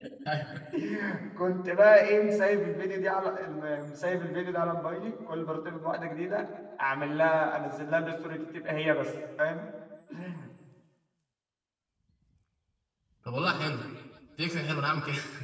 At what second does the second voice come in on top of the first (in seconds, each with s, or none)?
none